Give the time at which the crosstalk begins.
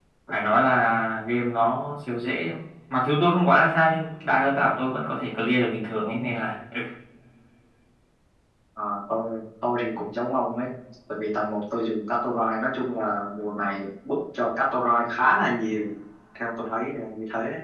none

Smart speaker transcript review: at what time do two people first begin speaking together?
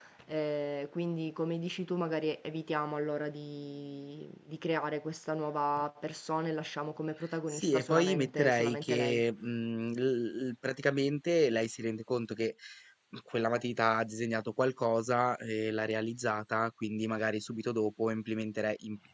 7.5 s

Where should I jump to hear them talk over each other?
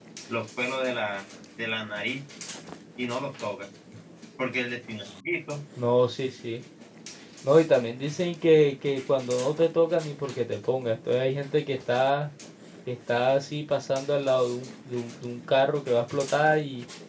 none

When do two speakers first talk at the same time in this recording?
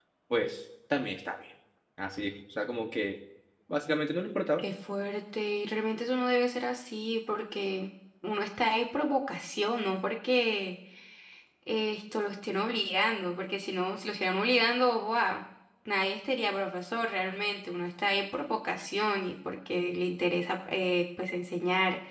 none

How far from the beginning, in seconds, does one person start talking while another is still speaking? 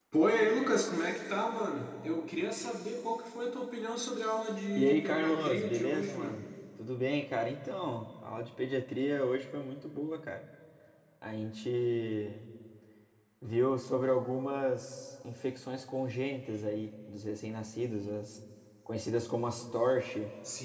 4.8 s

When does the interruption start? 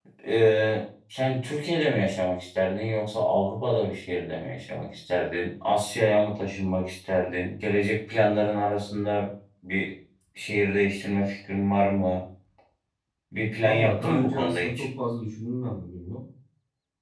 13.6 s

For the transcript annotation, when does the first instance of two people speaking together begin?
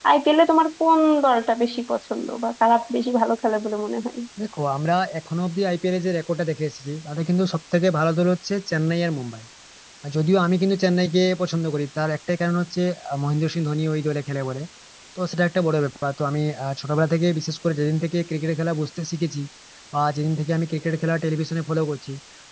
none

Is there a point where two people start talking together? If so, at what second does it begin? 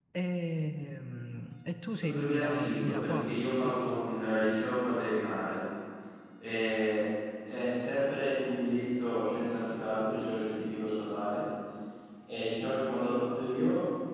1.9 s

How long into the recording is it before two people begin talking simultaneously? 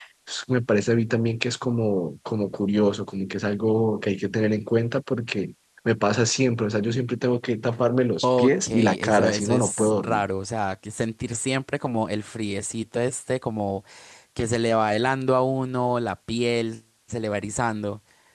8.2 s

